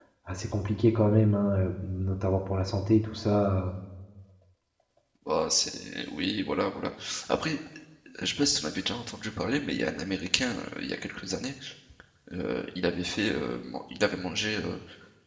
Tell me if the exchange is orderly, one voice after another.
Yes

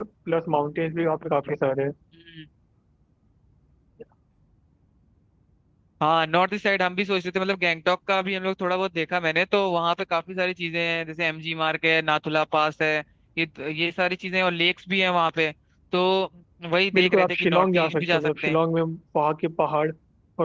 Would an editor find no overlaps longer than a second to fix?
No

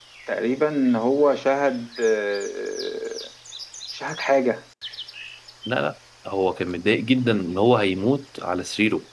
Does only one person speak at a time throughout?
Yes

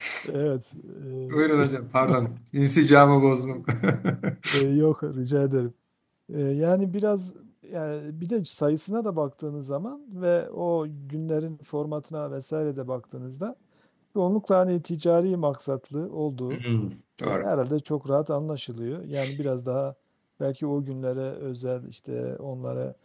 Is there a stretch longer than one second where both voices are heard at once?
No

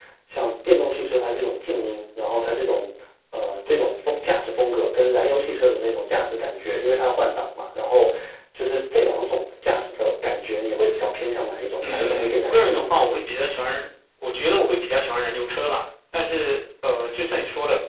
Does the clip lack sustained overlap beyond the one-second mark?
No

